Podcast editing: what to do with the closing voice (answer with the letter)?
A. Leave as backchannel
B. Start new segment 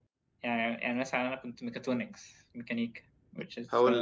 B